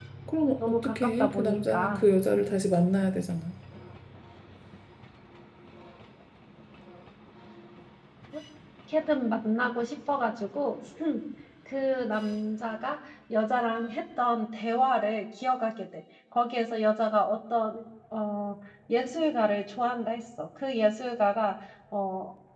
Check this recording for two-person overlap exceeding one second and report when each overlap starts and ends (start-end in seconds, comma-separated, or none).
0.7-2.5